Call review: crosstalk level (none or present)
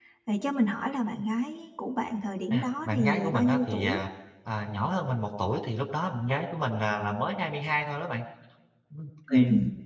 present